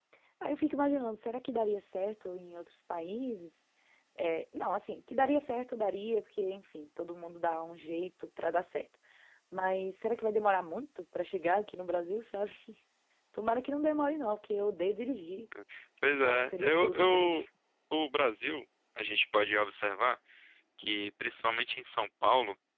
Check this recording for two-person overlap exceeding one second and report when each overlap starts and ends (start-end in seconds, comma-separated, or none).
16.1-17.3